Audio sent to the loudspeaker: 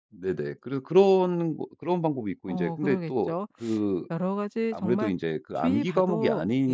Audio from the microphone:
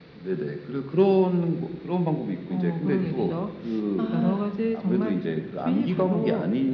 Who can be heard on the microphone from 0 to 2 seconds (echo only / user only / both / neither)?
echo only